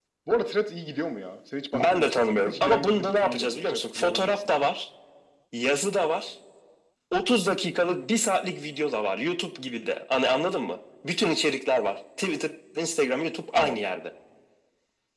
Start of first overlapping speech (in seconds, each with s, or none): 1.7 s